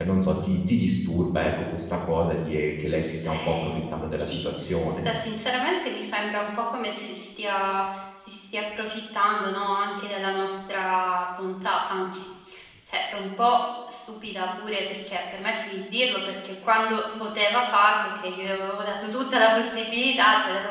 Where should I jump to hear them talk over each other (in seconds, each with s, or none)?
3.2 s